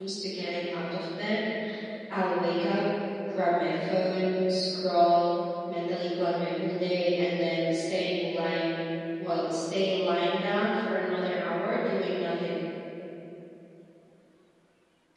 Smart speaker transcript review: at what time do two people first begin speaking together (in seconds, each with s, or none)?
none